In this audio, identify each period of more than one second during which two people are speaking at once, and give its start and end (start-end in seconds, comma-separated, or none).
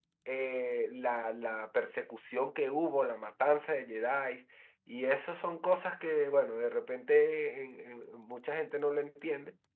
none